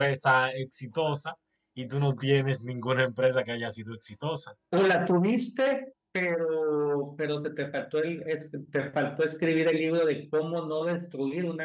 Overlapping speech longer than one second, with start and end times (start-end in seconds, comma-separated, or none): none